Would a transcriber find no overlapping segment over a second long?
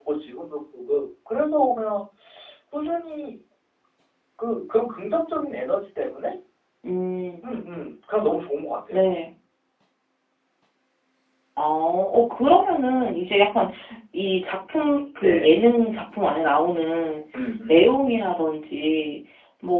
Yes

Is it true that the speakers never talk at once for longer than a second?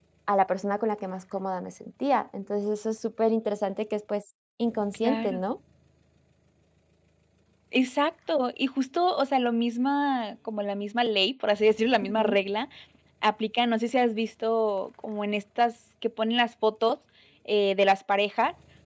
Yes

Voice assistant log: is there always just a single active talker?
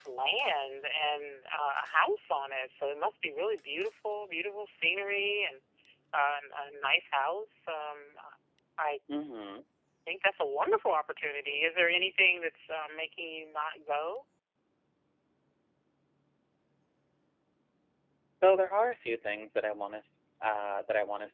Yes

